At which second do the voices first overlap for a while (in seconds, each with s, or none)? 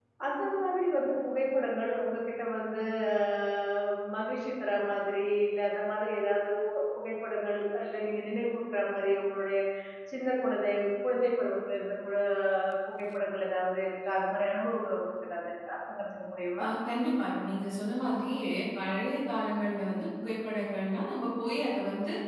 none